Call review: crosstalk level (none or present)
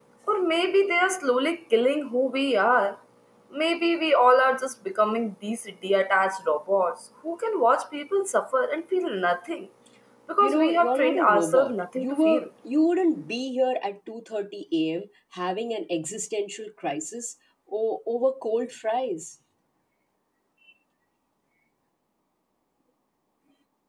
present